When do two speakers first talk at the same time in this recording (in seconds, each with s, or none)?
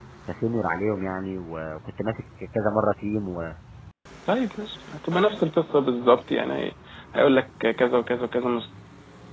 none